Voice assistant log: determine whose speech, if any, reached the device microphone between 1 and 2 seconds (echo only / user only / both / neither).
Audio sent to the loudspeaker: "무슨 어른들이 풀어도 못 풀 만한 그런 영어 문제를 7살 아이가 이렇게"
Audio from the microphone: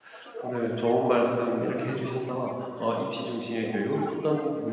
both